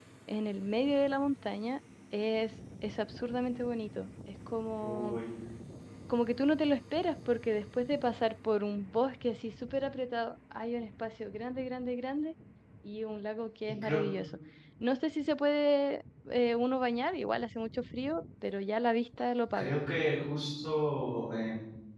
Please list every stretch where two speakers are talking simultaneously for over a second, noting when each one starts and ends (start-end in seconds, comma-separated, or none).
none